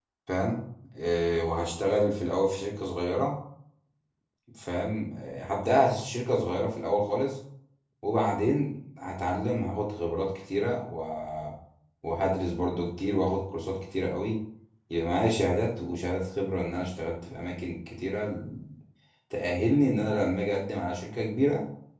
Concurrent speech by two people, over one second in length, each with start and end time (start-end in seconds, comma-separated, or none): none